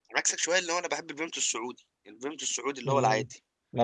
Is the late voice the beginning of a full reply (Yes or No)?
Yes